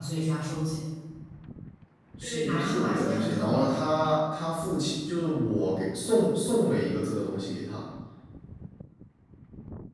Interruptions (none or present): present